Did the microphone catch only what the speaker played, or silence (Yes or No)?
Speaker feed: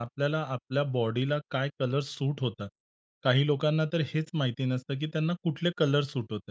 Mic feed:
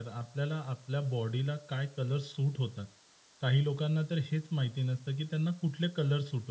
Yes